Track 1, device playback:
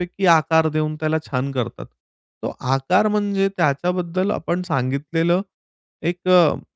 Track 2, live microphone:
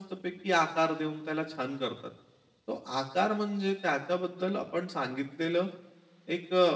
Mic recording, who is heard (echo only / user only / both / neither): echo only